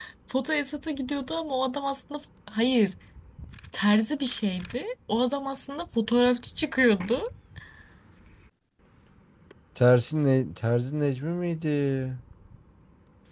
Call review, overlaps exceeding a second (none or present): none